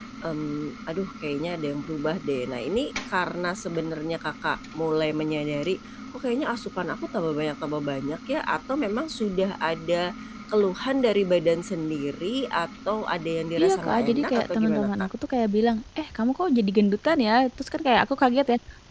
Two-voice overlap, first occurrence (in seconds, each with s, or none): 13.6 s